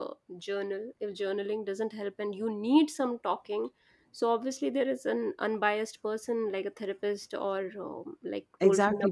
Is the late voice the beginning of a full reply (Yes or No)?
Yes